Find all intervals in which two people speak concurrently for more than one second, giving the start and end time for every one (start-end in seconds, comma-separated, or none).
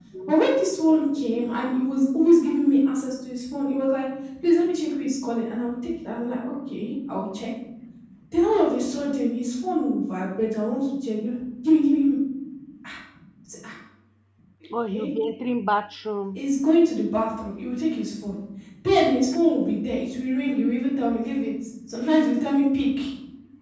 none